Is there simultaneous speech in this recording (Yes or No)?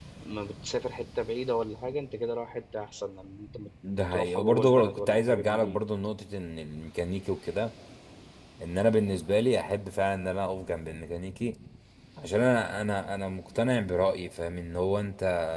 Yes